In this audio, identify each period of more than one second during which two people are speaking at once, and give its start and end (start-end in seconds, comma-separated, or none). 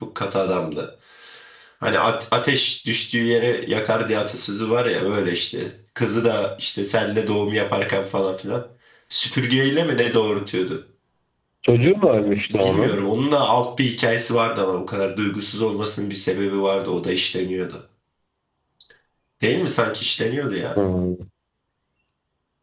none